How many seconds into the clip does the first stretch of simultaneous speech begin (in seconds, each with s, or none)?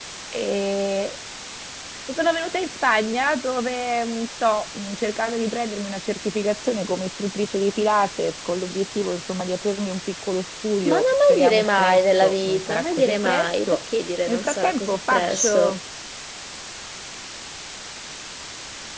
10.9 s